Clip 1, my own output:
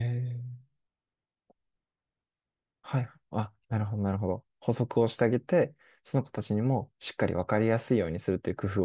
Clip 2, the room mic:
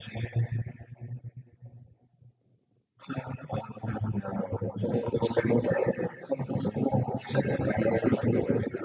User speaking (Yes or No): No